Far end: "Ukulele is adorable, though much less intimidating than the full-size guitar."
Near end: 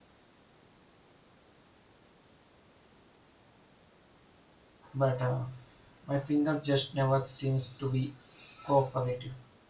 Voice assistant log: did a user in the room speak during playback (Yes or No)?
Yes